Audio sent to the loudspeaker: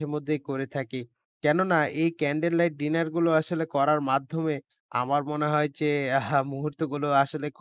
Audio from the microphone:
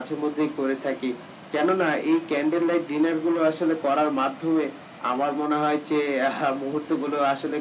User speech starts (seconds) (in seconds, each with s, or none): none